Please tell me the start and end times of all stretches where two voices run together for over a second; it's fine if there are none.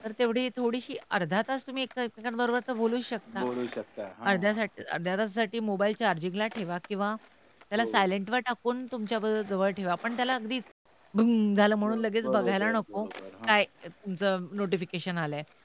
11.8-13.1

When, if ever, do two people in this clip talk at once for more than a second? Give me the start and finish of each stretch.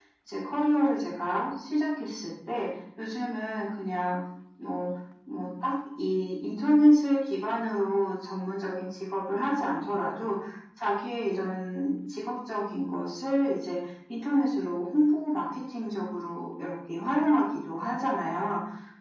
none

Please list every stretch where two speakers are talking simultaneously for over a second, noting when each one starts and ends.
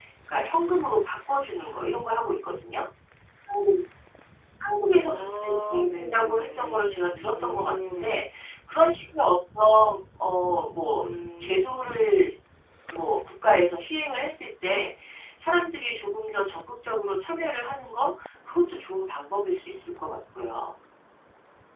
5.0-8.2

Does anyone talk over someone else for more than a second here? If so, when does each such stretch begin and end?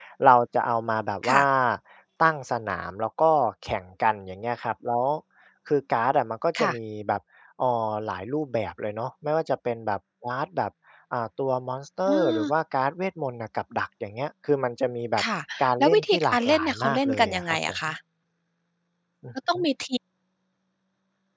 15.8-17.8

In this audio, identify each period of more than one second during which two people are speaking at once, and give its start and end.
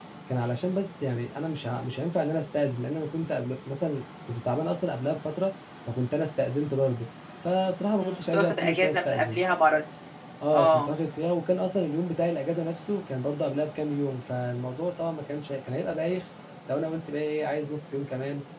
8.0-9.4

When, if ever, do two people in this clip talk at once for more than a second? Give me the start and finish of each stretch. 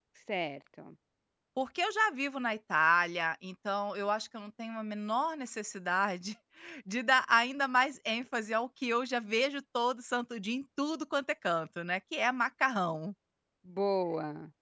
none

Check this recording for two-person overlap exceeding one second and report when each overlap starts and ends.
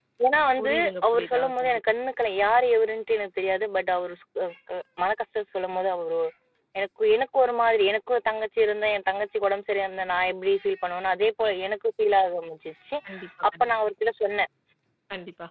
0.6-1.8

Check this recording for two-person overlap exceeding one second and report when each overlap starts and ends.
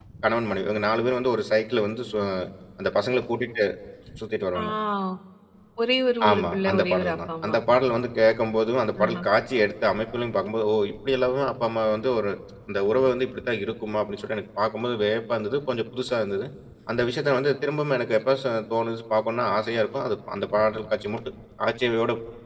6.3-7.5

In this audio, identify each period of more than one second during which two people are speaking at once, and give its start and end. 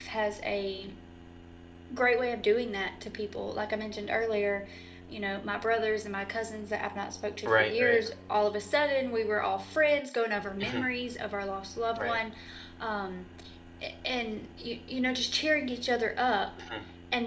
none

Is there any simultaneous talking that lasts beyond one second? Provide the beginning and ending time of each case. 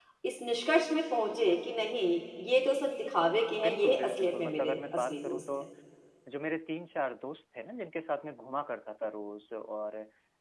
3.6-5.4

